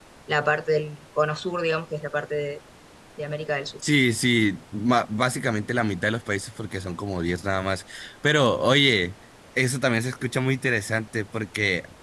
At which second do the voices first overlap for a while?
none

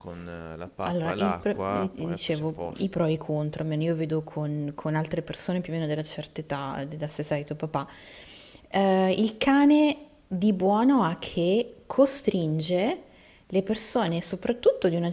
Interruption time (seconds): 0.8 s

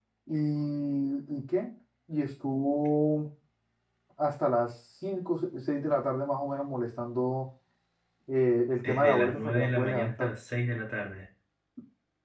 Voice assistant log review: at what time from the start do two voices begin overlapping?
8.8 s

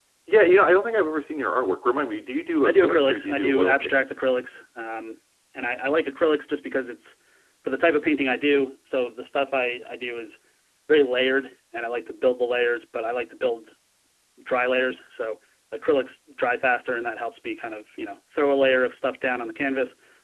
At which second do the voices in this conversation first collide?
2.6 s

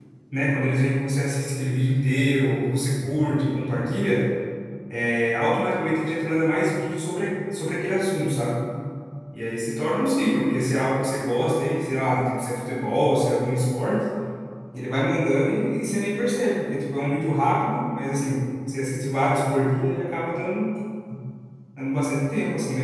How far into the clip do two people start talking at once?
none

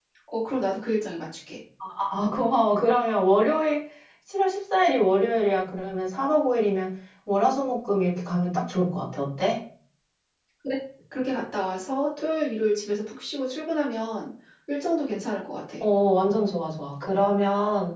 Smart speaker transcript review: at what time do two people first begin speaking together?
none

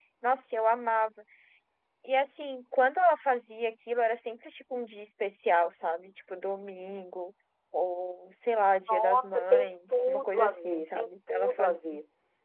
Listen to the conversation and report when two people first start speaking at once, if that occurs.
8.9 s

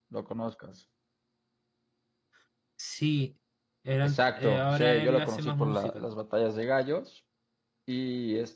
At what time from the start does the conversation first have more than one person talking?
4.0 s

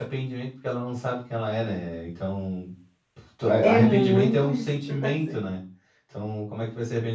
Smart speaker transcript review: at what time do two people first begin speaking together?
3.6 s

